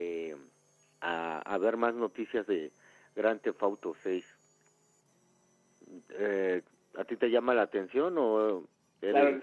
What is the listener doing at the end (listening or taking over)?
taking over